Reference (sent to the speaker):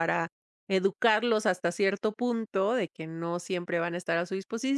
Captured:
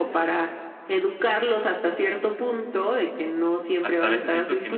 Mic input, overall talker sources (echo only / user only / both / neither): both